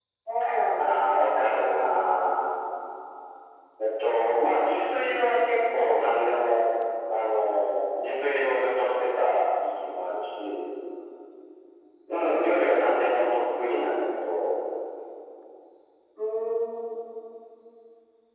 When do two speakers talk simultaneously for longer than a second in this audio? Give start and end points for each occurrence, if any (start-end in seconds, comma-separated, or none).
0.8-2.0